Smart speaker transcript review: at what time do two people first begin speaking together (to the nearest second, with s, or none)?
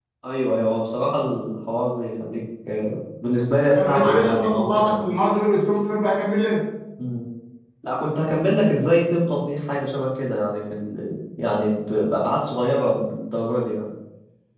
4 s